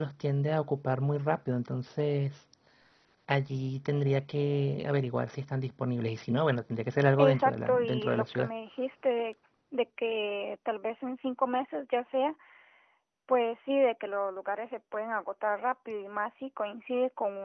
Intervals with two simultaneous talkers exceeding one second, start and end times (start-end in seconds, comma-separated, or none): 7.2-8.5